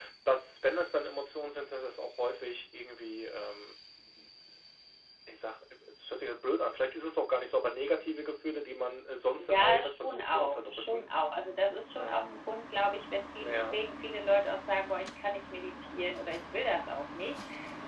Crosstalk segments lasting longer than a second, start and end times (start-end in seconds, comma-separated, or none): 9.4-11.1